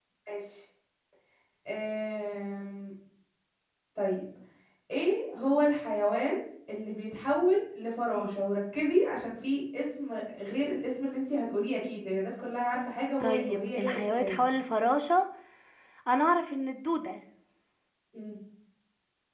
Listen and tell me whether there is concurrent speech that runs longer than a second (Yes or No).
Yes